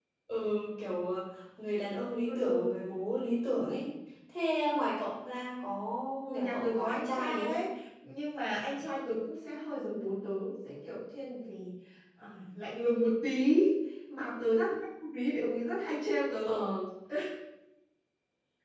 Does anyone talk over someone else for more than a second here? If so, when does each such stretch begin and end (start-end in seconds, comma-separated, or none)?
6.2-7.6